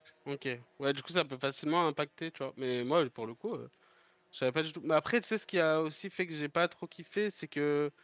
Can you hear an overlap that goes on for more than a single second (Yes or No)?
No